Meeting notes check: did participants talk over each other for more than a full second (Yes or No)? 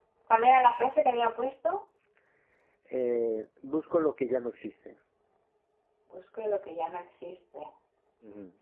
No